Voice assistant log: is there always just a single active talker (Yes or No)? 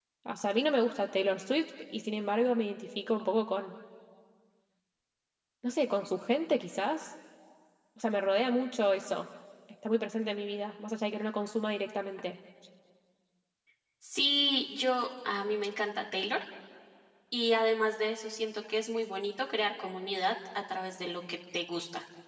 Yes